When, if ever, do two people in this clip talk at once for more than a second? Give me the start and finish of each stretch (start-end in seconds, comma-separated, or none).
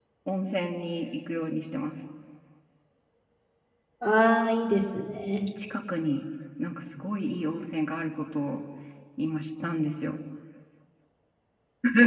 none